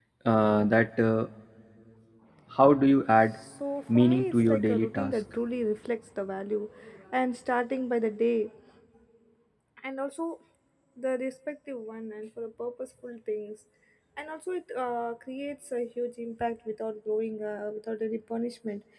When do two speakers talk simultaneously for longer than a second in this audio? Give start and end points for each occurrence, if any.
3.9-5.2

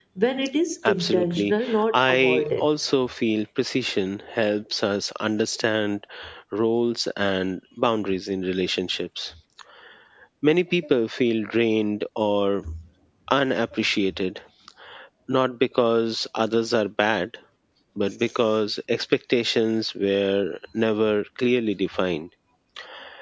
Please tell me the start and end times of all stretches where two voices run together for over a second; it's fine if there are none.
0.9-2.7

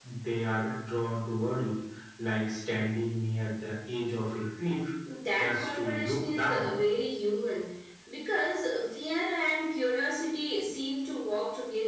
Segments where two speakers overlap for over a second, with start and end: 5.4-6.7

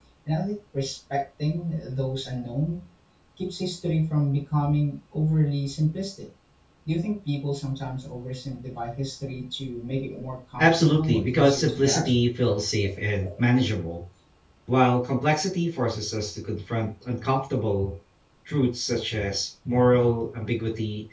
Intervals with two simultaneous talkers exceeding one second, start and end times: 10.6-12.2

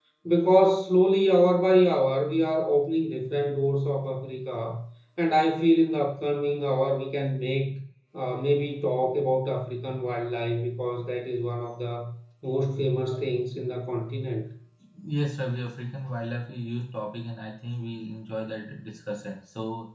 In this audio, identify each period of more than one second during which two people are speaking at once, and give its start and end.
none

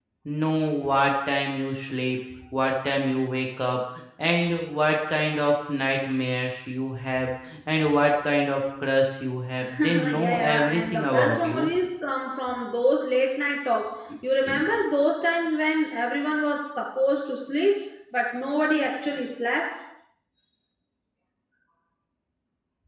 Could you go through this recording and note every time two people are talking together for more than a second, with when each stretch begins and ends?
9.8-11.7

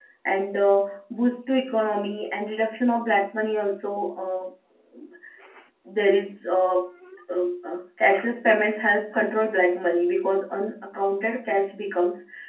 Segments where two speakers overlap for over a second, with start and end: none

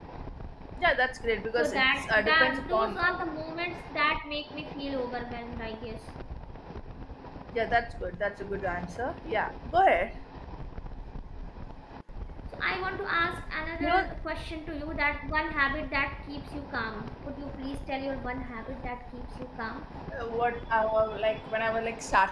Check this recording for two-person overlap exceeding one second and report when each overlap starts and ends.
1.6-3.2

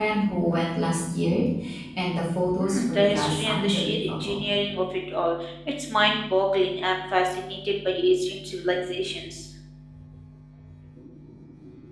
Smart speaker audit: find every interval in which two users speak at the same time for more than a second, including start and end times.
2.6-4.5

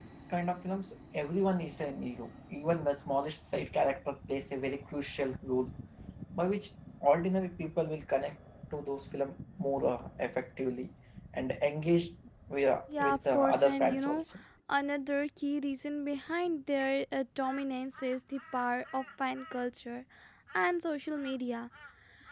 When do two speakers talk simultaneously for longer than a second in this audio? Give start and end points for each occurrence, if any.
13.0-14.2

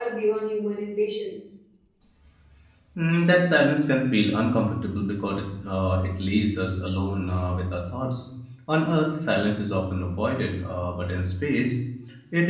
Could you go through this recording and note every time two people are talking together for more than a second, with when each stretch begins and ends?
none

